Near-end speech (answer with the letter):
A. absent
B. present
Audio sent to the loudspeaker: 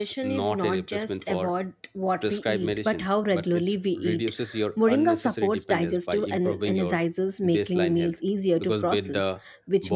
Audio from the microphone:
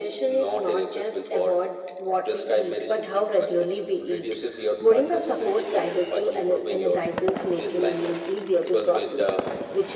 A